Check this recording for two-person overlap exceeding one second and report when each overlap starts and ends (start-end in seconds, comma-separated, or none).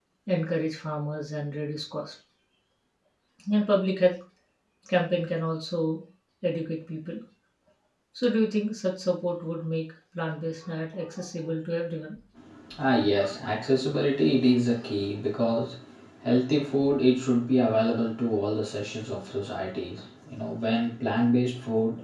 none